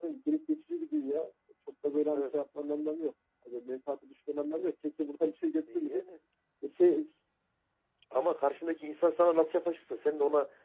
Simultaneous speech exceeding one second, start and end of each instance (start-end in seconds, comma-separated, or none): none